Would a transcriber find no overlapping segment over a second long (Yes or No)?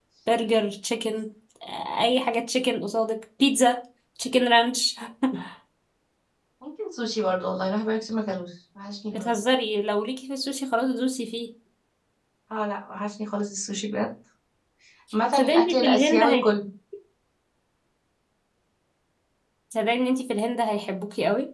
No